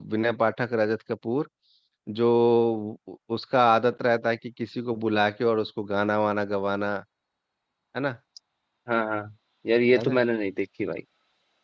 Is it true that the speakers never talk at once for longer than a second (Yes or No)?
Yes